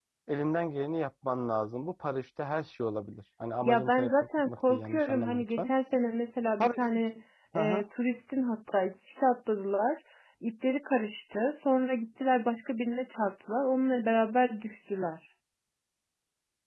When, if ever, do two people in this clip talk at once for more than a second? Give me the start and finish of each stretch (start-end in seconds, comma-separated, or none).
3.6-5.7